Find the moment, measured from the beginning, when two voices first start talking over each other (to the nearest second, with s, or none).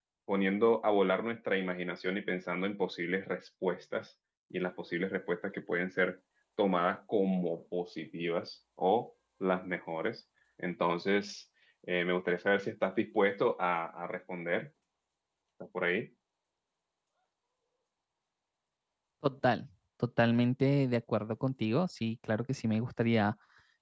none